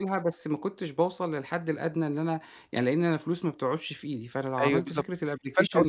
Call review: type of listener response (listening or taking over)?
taking over